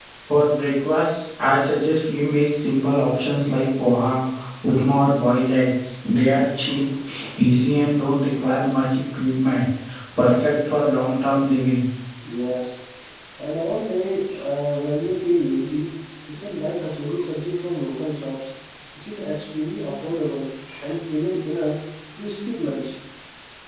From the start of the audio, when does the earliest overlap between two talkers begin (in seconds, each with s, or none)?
none